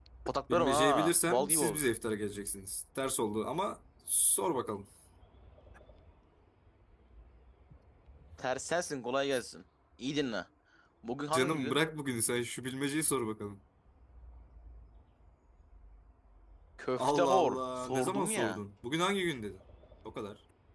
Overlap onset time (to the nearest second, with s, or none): 1 s